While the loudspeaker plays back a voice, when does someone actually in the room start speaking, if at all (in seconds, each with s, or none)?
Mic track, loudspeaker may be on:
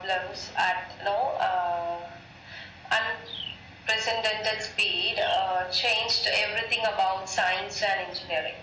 none